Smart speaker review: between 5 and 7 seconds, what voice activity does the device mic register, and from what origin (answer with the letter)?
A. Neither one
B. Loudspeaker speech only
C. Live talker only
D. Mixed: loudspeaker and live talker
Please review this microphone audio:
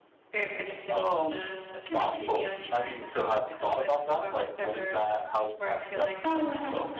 D